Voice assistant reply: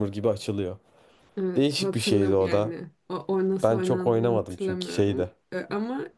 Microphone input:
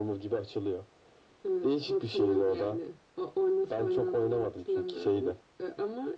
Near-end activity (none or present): none